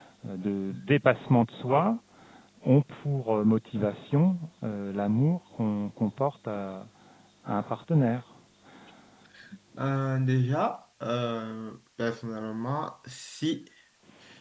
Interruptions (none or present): none